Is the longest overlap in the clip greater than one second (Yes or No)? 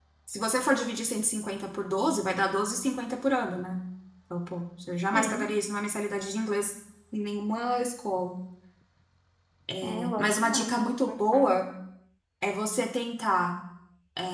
Yes